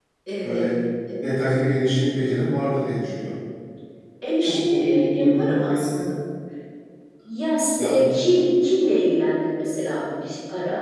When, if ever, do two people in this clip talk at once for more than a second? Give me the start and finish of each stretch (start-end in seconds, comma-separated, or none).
4.4-6.0